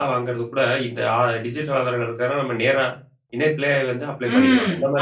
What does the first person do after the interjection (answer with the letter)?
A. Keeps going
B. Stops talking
B